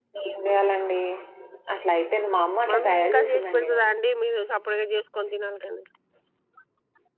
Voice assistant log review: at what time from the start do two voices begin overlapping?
3 s

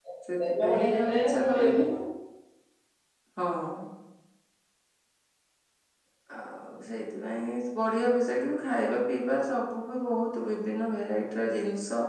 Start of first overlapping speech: 1 s

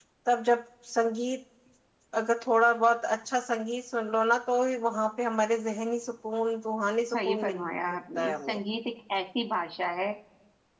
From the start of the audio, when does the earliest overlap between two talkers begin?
7 s

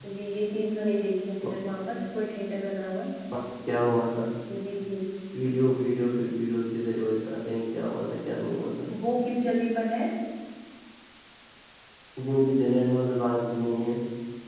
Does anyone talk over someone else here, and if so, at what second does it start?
none

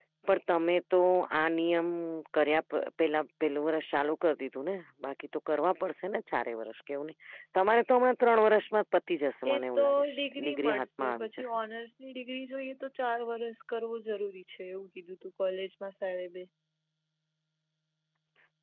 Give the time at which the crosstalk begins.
9 s

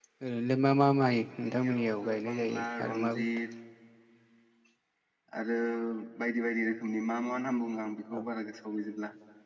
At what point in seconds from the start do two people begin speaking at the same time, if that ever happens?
1 s

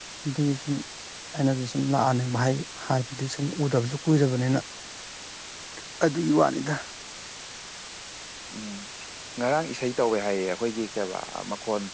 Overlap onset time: none

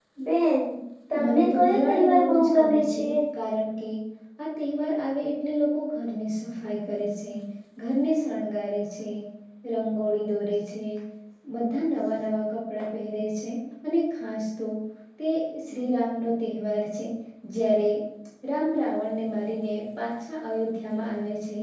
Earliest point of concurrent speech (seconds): 1 s

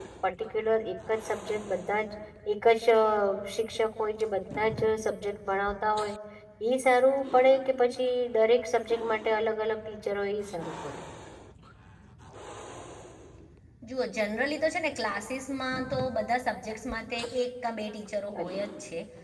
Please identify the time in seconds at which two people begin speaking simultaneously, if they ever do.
none

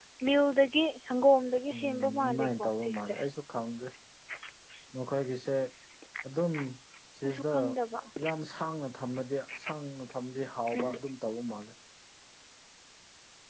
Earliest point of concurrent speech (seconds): 2 s

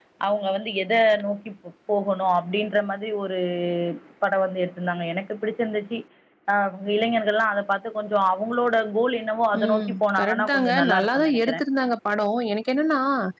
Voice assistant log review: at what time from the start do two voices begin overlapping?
10 s

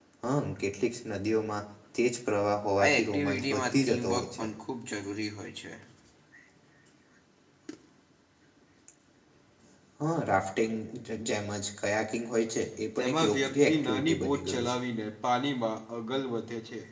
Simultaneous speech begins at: 3 s

